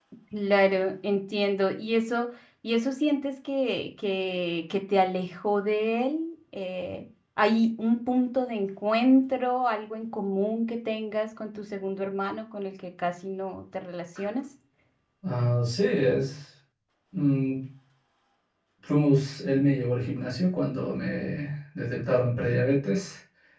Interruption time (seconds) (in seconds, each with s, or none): none